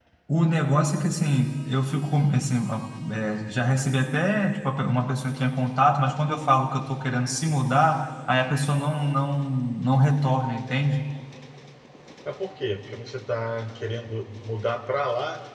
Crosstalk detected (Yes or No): No